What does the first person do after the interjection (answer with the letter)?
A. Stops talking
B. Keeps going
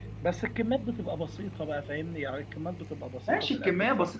A